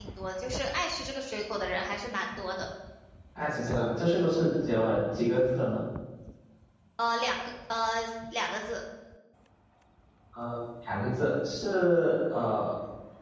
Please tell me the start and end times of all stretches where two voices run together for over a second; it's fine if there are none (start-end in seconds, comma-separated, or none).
none